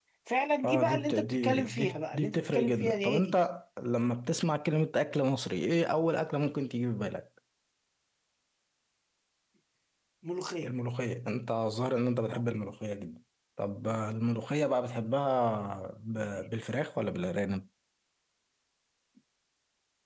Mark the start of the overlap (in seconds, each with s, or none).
0.6 s